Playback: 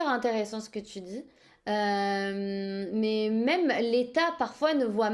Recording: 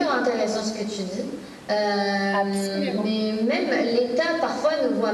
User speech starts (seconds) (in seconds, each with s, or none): 2.3 s